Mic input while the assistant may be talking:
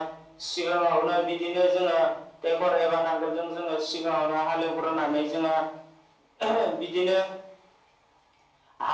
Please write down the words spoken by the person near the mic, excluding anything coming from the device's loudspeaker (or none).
none